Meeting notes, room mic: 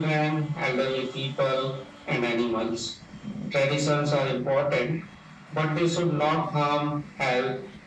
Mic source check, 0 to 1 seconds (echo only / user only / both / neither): echo only